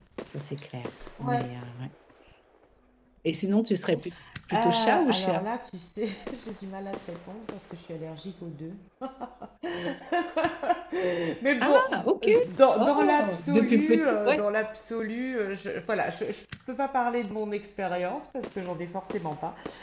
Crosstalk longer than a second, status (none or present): present